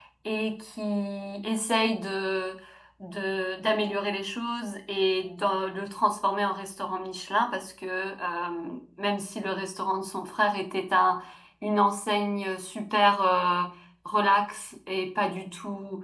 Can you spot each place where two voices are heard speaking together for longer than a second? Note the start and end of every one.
none

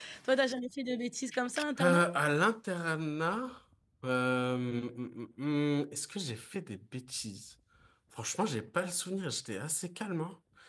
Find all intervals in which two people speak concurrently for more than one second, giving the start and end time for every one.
none

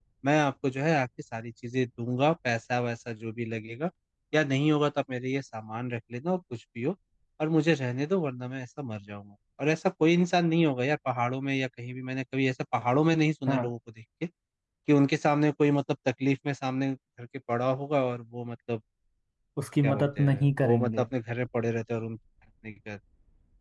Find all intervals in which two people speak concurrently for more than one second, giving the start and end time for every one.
19.8-21.1

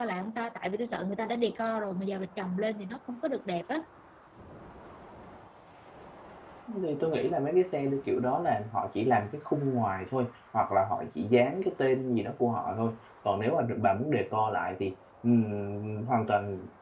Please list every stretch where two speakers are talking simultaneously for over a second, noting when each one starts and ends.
none

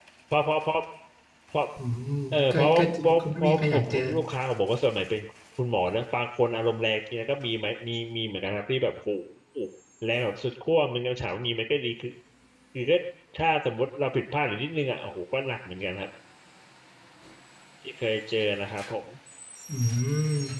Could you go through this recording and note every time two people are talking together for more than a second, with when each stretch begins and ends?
2.5-4.0

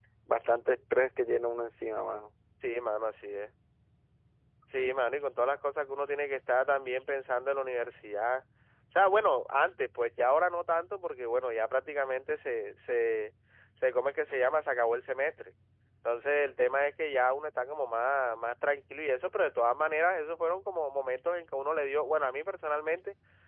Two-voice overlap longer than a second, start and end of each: none

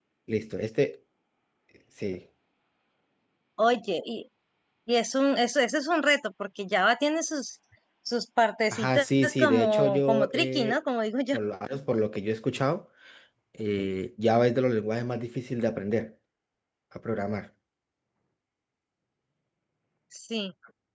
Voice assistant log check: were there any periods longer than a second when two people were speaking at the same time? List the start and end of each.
8.7-10.8

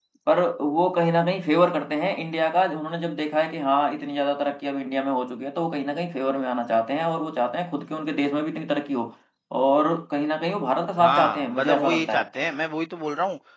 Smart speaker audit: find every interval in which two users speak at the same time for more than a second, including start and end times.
11.0-12.2

